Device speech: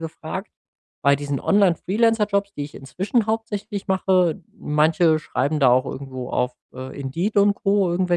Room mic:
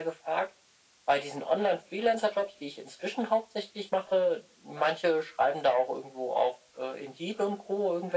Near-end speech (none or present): none